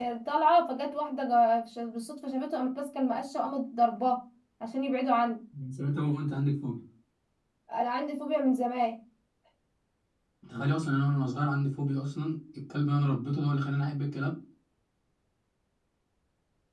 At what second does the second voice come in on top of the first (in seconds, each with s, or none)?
none